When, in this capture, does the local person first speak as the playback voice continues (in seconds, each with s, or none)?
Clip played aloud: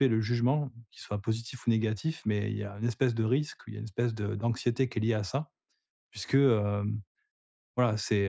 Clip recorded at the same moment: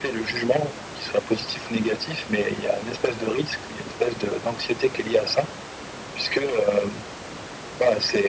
none